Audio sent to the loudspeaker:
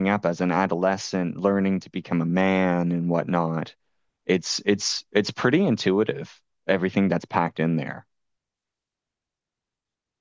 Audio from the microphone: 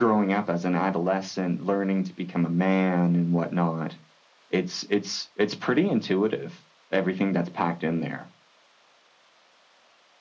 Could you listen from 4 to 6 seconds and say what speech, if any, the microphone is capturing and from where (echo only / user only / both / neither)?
echo only